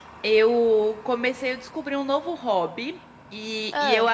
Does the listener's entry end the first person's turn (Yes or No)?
No